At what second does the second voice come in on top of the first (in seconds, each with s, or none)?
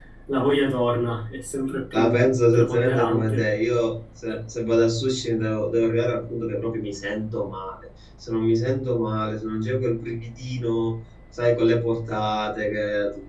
1.9 s